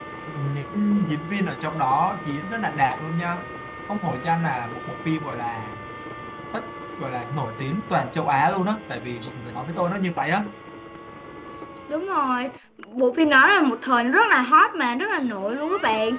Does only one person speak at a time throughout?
Yes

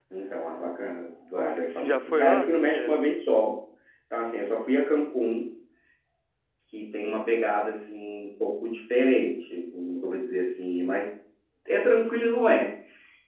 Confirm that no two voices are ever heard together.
No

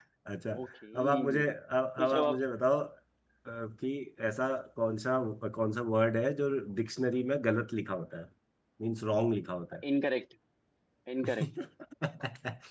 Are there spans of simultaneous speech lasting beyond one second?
No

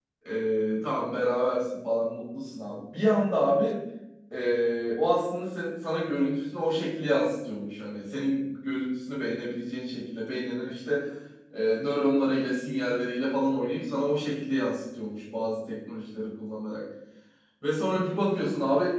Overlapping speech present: No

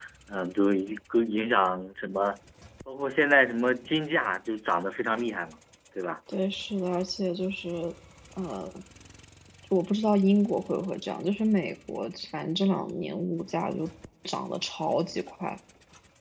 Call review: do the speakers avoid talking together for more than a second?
Yes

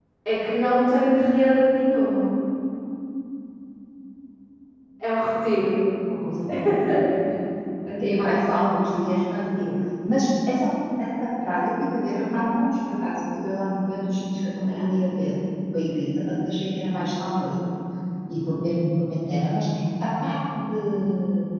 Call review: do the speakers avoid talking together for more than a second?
Yes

